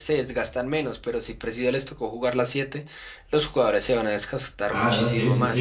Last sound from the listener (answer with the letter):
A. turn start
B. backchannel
A